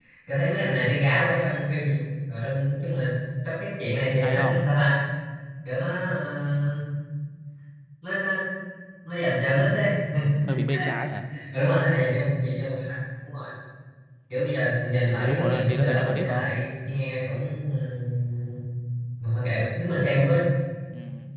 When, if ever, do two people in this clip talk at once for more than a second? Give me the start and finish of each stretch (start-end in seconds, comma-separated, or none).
15.1-16.5